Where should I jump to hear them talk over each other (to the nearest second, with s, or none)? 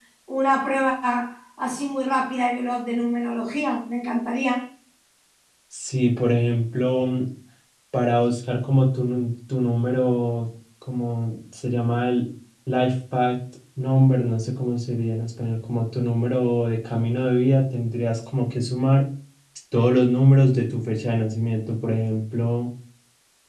none